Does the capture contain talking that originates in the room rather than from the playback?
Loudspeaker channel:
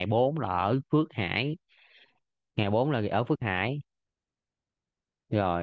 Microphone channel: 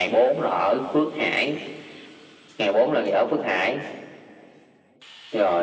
No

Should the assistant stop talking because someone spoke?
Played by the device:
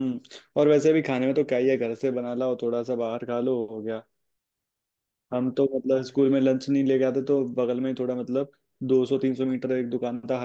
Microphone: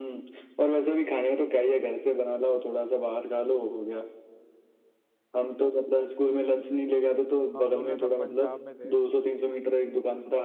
Yes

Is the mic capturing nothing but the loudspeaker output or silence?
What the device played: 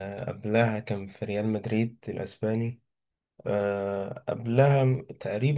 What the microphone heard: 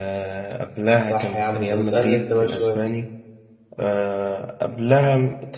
No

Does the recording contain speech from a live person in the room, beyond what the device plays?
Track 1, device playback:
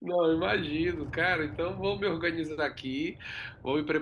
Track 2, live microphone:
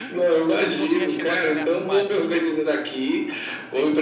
Yes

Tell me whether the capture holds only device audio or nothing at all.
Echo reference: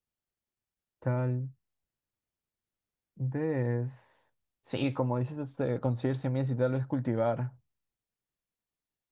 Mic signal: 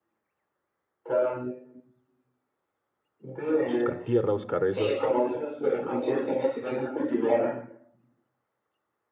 No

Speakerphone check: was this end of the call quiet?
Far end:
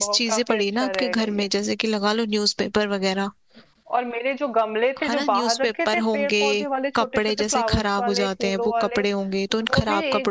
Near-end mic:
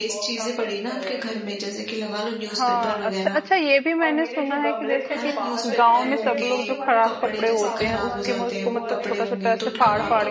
No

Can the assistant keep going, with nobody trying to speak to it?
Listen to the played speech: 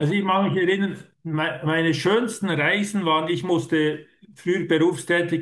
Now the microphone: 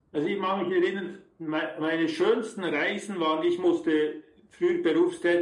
Yes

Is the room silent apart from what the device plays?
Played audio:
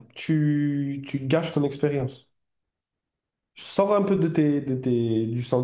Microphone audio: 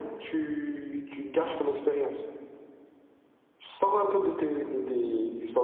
Yes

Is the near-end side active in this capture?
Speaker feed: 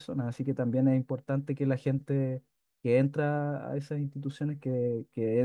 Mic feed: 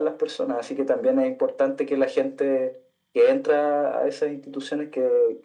No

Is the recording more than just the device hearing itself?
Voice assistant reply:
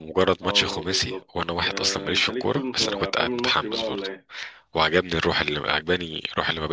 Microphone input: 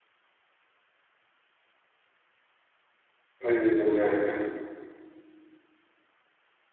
Yes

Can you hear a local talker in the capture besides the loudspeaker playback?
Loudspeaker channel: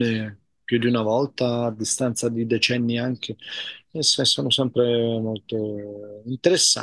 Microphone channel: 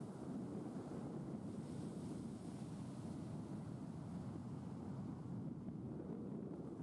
No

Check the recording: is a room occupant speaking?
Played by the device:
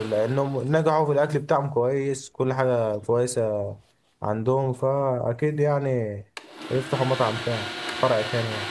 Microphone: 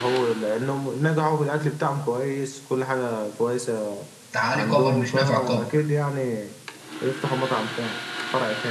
Yes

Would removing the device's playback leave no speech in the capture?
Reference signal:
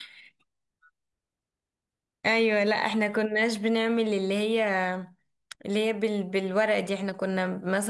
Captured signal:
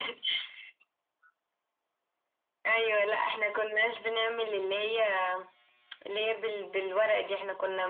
Yes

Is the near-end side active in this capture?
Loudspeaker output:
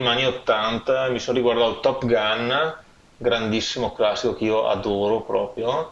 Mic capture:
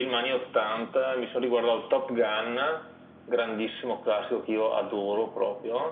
No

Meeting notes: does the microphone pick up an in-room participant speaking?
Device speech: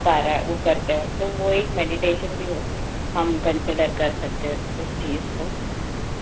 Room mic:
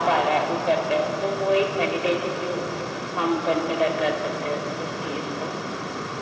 No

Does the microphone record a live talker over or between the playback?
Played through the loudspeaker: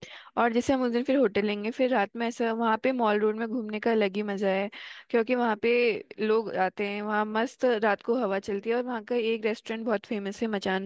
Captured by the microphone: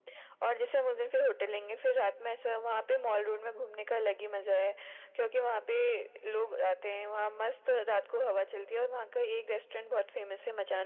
No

